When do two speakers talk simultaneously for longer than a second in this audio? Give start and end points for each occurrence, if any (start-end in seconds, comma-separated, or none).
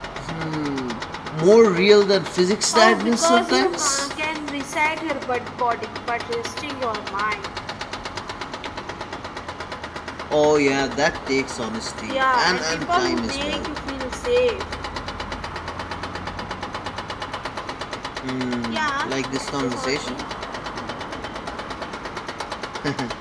2.7-4.1, 12.1-13.7, 18.7-20.2